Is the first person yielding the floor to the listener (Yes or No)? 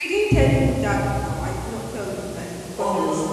Yes